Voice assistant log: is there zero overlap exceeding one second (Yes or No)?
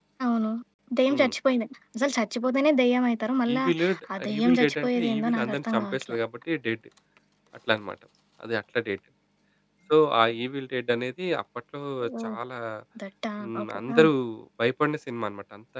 No